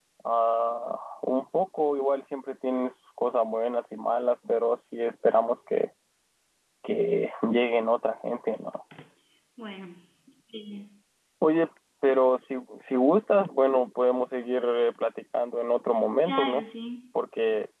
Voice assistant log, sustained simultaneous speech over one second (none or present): none